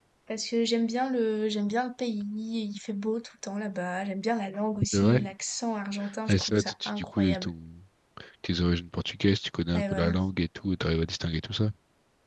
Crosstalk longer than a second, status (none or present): present